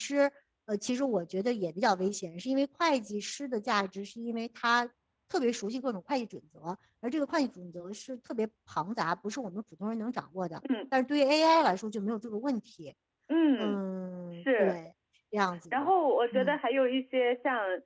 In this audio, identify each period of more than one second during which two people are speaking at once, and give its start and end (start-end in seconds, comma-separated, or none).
none